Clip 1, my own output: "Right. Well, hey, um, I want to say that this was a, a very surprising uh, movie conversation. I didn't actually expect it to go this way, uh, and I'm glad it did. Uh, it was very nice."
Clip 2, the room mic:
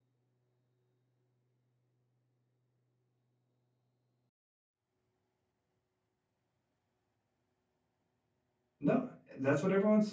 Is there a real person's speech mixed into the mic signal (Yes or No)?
Yes